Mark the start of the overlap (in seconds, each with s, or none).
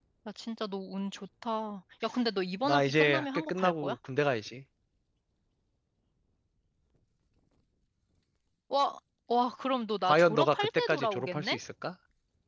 2.6 s